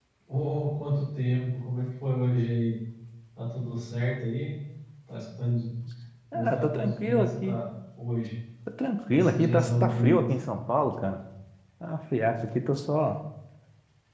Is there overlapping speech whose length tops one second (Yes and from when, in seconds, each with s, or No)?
Yes, from 6.3 s